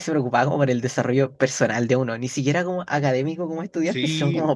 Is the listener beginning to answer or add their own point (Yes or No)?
Yes